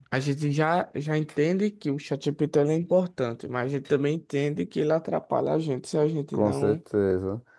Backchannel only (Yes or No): No